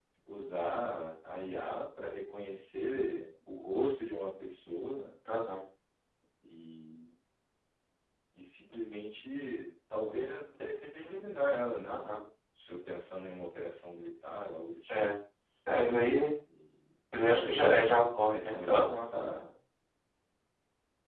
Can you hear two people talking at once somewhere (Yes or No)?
Yes